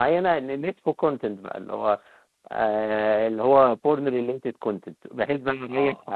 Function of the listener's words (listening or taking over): listening